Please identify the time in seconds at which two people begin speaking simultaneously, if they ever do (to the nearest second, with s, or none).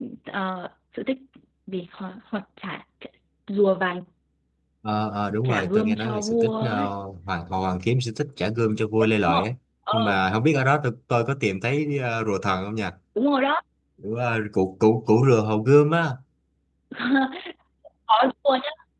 5 s